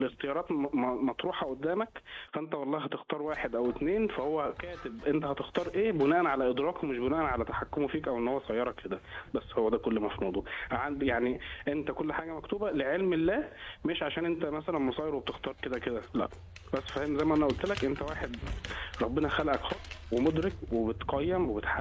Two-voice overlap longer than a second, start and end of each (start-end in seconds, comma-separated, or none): none